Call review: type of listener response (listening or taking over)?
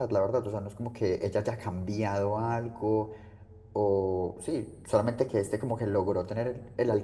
listening